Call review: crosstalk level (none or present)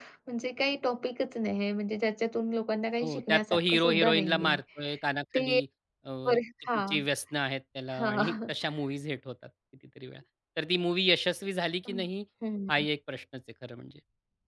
present